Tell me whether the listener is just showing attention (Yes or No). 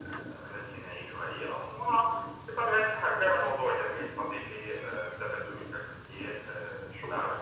No